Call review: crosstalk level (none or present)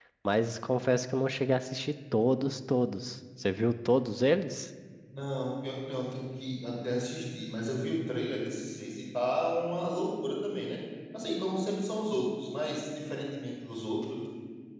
none